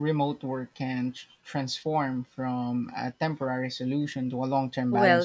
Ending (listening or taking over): taking over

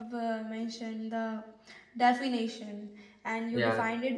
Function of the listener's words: listening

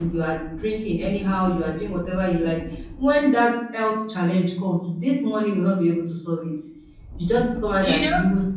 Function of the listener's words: listening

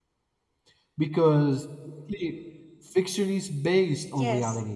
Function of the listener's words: taking over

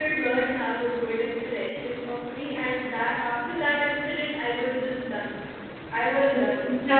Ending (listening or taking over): taking over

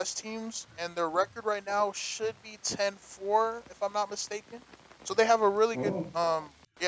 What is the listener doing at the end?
listening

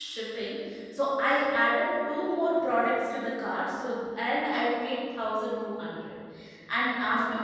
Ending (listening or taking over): listening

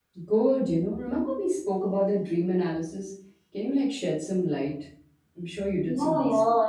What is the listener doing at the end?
taking over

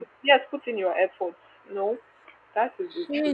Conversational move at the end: taking over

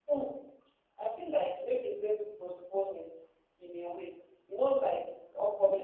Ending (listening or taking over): listening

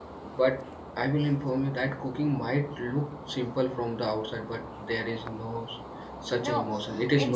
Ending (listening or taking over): taking over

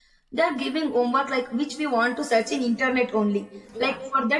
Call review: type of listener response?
listening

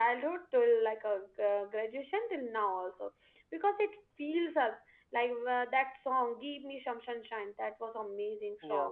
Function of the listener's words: listening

